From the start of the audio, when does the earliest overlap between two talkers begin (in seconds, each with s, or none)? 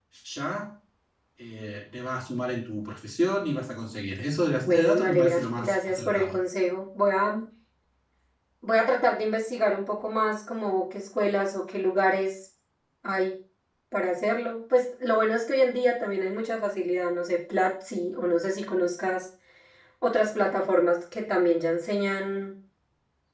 4.6 s